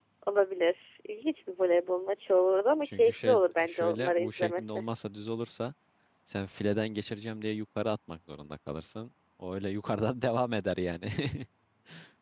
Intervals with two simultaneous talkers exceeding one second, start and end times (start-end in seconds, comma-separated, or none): 2.8-4.8